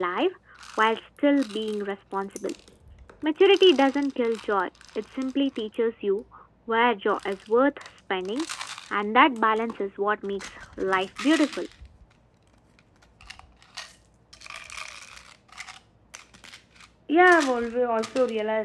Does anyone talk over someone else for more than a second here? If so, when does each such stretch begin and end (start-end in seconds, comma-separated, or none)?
none